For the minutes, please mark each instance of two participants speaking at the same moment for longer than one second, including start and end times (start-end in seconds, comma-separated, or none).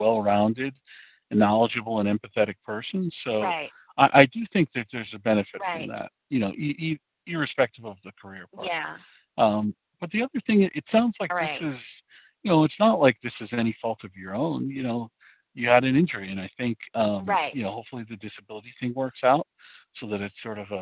none